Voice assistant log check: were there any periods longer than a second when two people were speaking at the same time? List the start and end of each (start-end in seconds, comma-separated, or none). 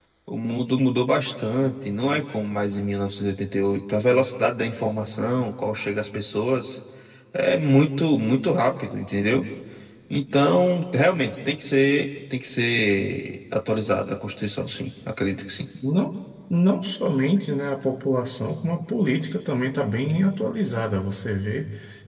none